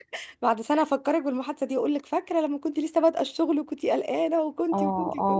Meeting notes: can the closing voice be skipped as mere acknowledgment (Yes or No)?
No